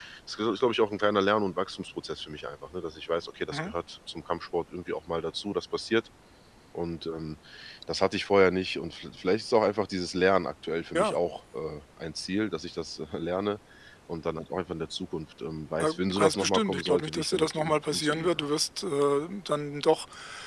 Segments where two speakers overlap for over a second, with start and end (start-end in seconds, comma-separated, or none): 15.8-18.5